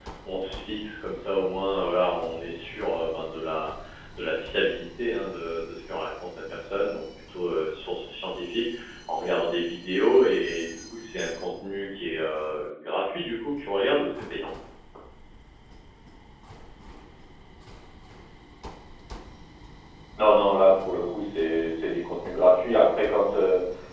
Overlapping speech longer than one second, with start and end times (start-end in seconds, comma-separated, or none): none